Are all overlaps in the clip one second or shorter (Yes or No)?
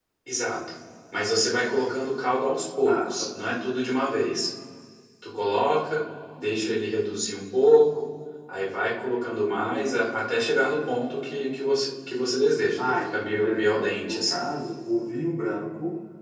No